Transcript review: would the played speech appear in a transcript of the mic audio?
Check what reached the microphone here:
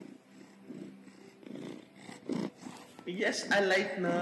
No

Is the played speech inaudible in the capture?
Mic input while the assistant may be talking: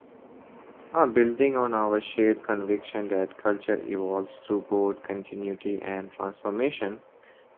Yes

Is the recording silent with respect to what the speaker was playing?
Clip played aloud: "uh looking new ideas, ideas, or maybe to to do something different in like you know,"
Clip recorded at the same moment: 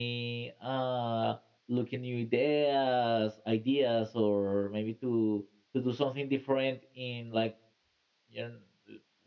No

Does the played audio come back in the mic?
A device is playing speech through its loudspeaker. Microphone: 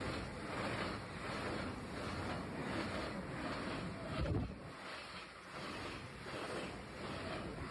No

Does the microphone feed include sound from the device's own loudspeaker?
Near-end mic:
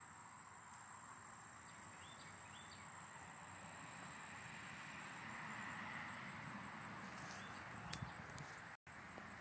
No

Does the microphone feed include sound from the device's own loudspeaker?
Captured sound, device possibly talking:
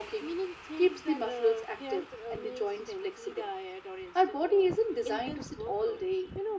Yes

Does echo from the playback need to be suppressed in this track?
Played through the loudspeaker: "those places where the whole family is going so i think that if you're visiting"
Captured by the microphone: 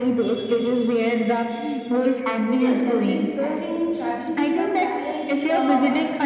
Yes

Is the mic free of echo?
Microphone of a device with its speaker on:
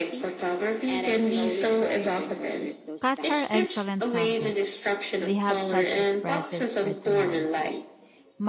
No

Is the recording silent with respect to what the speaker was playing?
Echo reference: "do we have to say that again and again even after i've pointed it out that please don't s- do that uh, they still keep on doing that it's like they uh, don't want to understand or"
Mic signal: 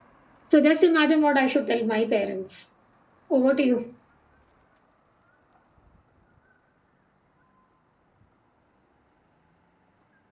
Yes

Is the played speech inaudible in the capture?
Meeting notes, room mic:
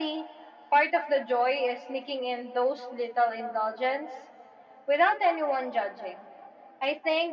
No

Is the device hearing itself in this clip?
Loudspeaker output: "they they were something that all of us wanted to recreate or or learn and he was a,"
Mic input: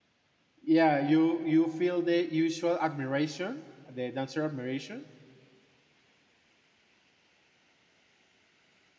No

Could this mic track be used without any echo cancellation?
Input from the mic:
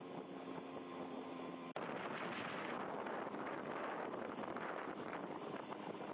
Yes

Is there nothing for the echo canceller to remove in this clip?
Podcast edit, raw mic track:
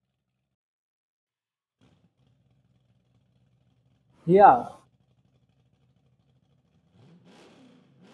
Yes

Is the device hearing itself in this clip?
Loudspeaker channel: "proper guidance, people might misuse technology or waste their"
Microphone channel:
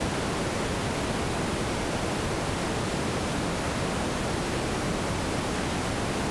No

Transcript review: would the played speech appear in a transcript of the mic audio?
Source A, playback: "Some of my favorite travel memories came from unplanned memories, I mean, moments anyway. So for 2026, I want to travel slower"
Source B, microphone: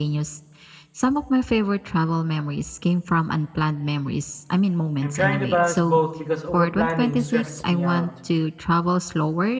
Yes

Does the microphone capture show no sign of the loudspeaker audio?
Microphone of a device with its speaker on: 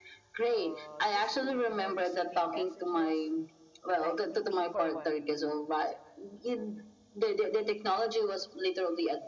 No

